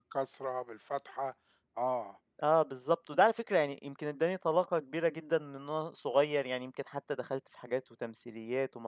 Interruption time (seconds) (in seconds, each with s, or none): none